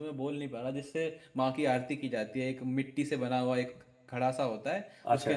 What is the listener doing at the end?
listening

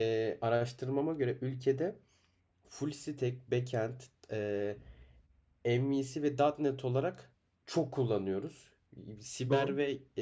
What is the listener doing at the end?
listening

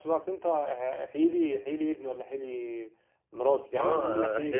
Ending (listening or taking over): taking over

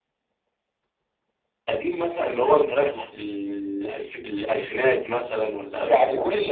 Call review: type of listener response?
taking over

